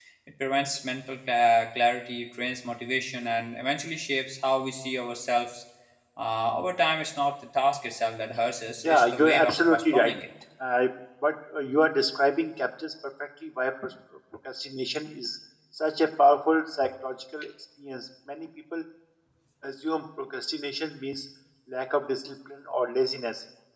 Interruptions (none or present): present